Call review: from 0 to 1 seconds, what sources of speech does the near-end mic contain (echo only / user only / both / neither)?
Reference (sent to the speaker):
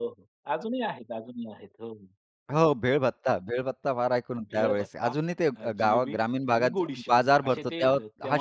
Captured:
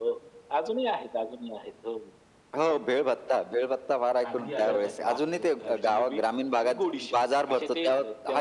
echo only